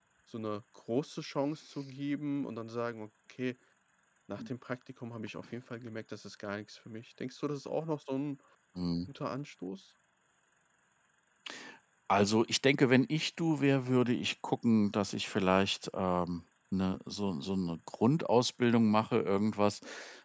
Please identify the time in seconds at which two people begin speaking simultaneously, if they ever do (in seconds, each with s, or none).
none